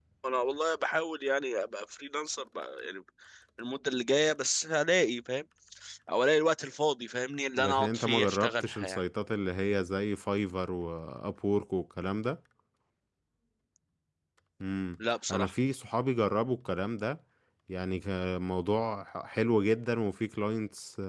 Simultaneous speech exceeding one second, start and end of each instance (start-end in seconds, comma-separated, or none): 7.6-9.0